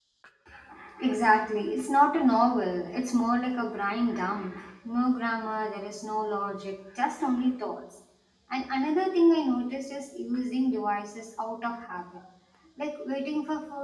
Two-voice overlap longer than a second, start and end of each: none

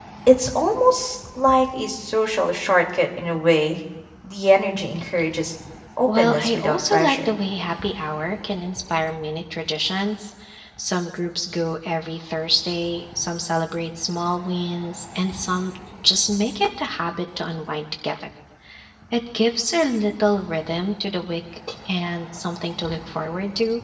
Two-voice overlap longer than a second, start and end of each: 6.1-7.3

